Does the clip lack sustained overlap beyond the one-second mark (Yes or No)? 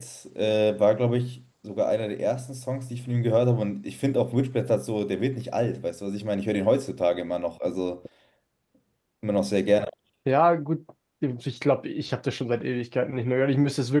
Yes